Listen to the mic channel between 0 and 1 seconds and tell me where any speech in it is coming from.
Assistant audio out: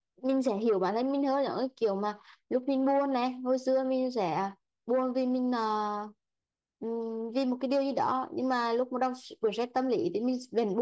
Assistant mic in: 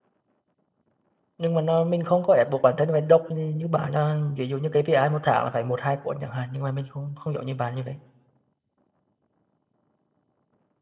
neither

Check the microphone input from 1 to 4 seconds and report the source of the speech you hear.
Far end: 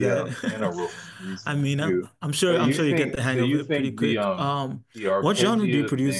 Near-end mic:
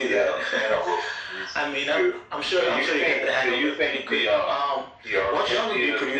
echo only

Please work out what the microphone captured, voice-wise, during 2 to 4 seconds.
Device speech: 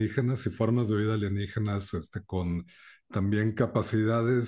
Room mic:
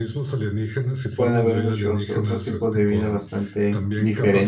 both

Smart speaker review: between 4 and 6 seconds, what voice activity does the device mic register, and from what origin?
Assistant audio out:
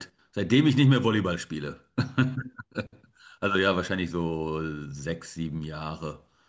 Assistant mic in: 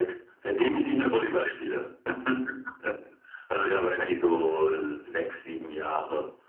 echo only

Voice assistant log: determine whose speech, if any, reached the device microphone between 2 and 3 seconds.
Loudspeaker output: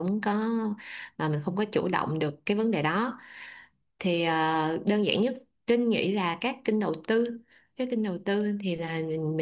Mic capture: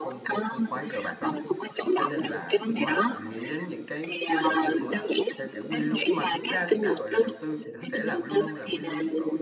both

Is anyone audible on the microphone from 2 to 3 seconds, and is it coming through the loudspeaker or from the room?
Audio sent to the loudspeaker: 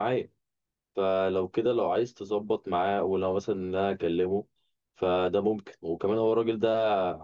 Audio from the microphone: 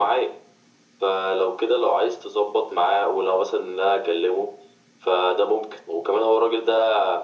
echo only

